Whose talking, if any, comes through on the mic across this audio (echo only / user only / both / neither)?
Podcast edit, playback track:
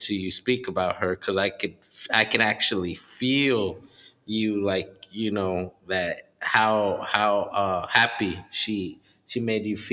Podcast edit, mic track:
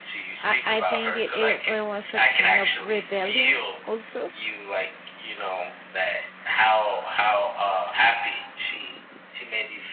both